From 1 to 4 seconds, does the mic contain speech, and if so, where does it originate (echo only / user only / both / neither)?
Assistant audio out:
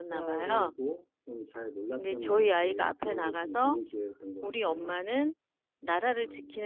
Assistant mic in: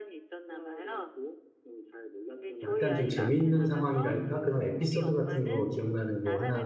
both